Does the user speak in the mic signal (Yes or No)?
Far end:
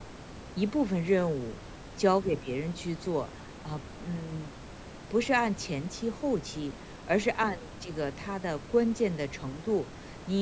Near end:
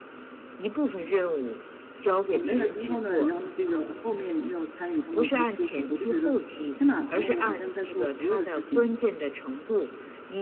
Yes